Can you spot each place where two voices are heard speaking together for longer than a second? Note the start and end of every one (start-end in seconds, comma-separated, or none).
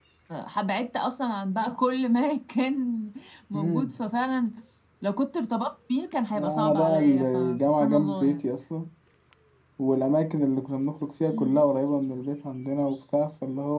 6.3-8.4